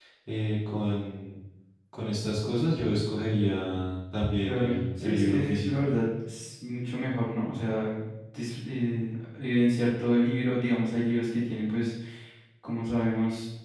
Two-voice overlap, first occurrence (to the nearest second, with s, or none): 4 s